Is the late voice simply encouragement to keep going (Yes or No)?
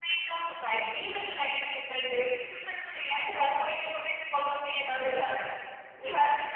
Yes